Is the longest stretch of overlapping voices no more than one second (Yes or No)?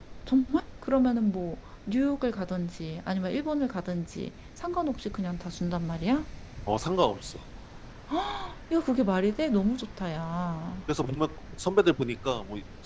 Yes